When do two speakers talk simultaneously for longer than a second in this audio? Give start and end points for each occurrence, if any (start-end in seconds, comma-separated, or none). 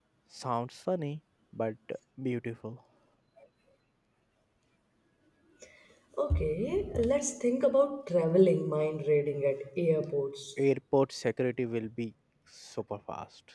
none